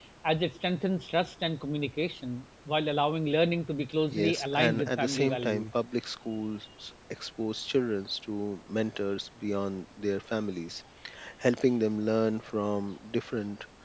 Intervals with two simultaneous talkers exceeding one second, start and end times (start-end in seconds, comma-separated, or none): 4.1-5.6